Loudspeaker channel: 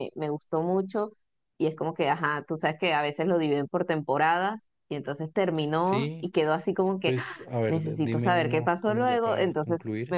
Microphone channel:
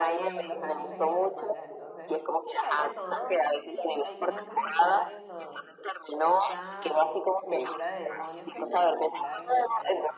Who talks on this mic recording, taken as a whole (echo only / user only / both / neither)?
both